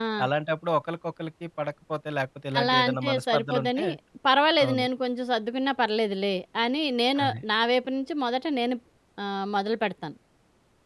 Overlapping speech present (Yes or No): Yes